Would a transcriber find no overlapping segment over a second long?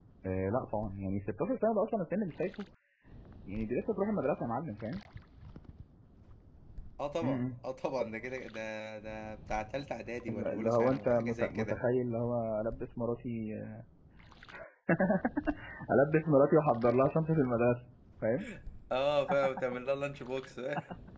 No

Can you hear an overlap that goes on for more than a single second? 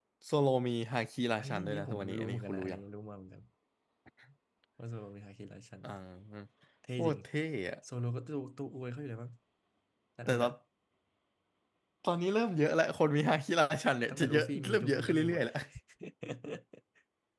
Yes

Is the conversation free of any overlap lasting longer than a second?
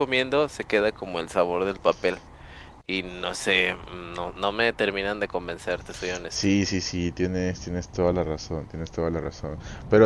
Yes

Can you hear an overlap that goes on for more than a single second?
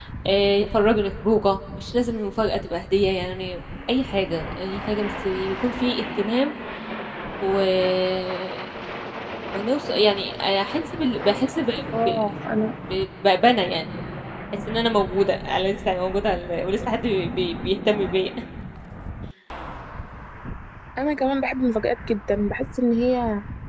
No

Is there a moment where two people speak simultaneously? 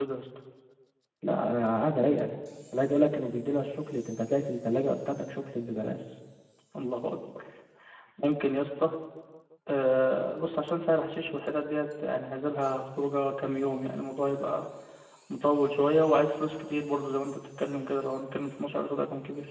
No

